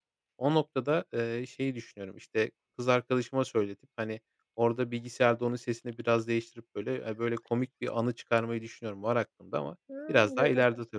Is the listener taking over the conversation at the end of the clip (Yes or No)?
Yes